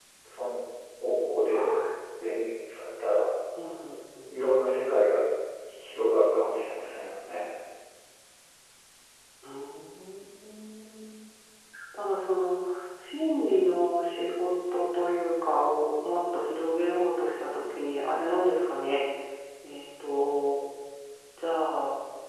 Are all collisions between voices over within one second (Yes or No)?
Yes